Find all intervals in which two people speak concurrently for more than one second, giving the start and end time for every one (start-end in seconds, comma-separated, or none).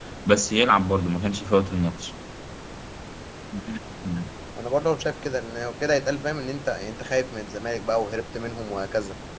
none